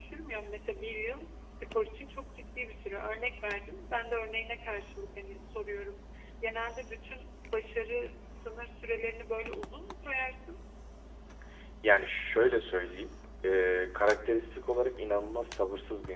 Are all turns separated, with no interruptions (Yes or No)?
Yes